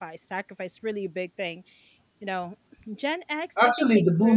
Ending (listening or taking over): taking over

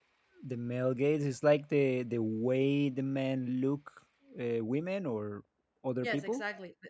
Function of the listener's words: taking over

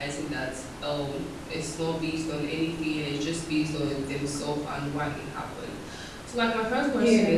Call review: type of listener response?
listening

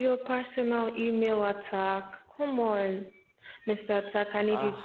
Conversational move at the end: listening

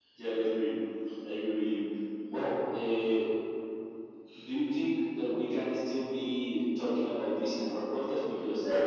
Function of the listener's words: taking over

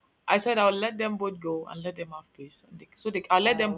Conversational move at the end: listening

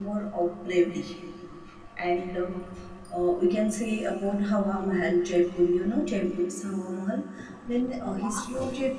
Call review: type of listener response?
listening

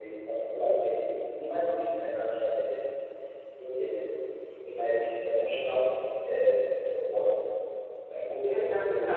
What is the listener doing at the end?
taking over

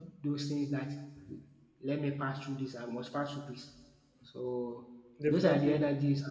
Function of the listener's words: listening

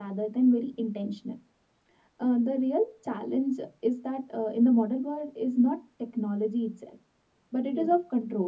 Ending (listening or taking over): listening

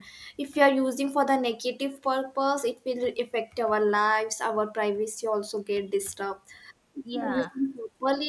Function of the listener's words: listening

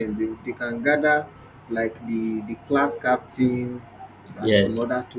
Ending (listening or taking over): listening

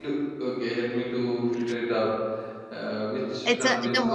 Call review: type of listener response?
taking over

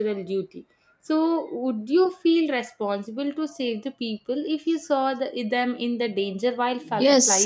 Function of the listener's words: taking over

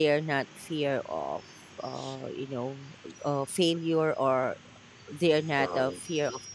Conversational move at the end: listening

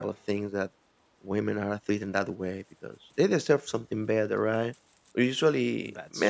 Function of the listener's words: listening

